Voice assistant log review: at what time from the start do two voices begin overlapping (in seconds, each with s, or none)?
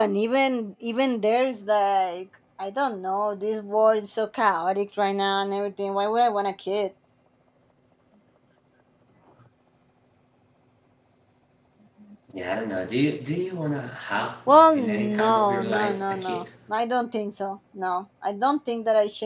14.5 s